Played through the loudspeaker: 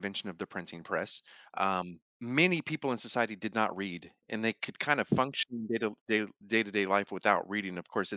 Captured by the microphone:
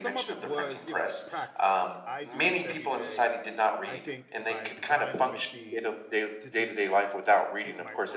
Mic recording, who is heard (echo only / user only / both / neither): both